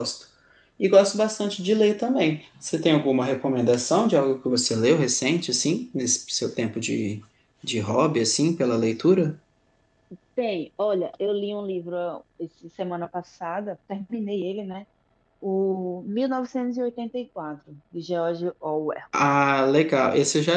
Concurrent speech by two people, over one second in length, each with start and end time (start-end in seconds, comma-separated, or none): none